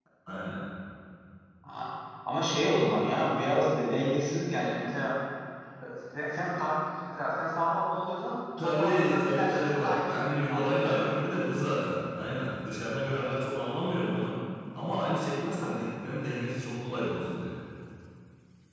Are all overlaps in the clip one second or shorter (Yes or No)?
No